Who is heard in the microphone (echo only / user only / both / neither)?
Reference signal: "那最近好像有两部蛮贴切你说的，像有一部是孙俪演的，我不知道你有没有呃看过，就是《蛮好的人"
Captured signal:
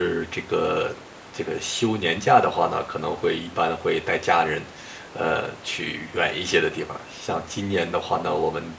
user only